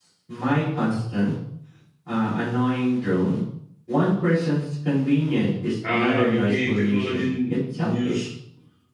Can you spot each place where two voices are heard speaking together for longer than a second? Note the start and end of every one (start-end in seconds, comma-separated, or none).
5.9-8.3